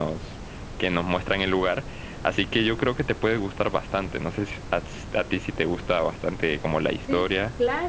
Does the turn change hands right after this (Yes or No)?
Yes